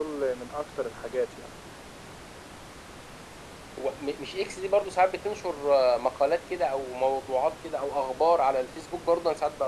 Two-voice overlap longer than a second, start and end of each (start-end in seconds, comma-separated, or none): none